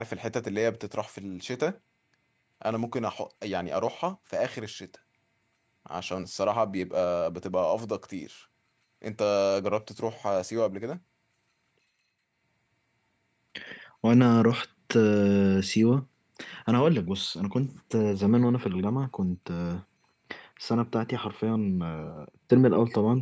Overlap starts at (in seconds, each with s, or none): none